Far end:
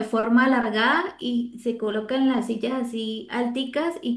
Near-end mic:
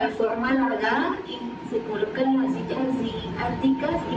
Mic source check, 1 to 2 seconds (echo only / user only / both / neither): echo only